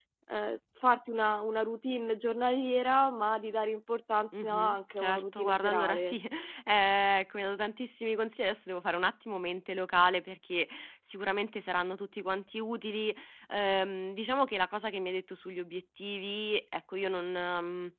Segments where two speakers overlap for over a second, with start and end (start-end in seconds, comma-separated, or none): 4.3-6.2